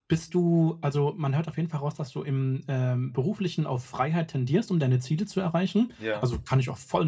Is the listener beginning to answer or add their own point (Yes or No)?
No